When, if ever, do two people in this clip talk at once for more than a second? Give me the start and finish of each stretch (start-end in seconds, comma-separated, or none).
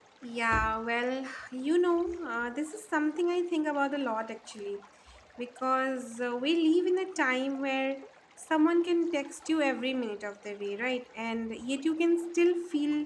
none